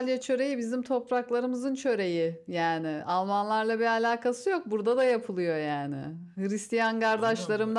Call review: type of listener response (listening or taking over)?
listening